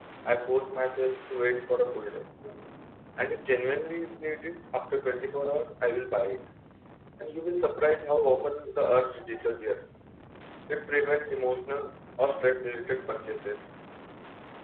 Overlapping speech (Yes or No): No